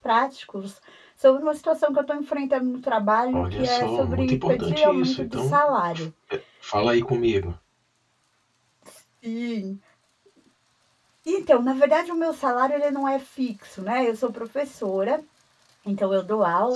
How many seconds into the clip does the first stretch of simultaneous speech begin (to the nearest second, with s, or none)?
3 s